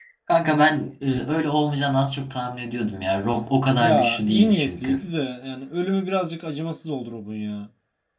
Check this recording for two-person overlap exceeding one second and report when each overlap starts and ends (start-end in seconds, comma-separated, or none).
3.8-5.1